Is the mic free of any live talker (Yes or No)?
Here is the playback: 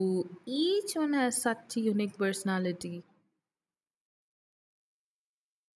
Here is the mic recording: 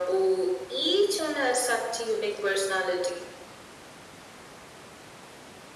Yes